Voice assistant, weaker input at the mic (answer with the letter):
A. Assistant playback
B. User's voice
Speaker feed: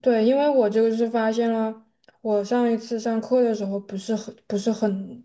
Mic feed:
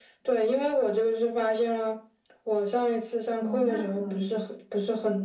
B